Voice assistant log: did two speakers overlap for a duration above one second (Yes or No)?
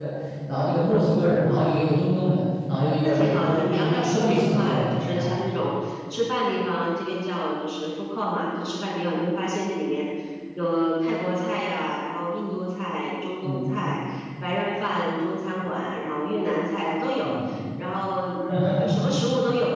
Yes